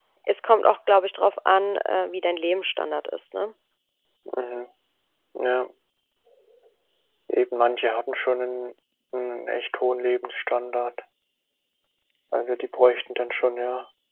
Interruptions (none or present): none